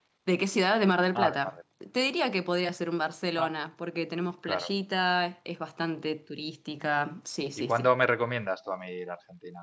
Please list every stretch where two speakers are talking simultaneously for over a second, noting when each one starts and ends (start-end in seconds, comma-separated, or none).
none